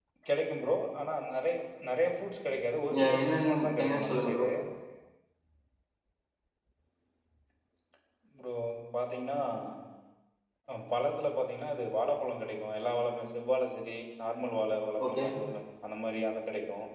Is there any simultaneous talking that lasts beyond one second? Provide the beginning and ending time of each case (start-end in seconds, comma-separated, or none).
2.9-4.5